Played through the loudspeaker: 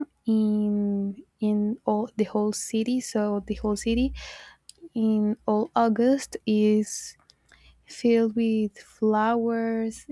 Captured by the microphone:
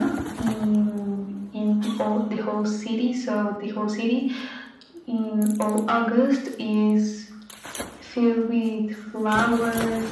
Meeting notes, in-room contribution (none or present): none